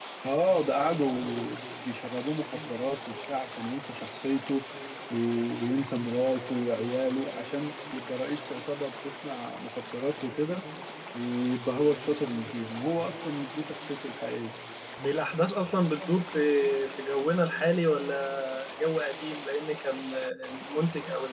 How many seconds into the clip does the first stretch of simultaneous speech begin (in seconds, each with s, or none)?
none